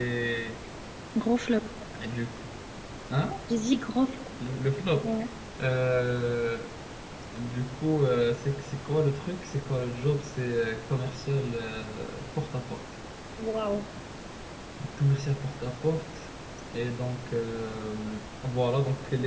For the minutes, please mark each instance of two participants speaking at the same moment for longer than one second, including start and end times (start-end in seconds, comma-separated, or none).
none